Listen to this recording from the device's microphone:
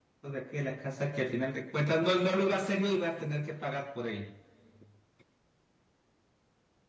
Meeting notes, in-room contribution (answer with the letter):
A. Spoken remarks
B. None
A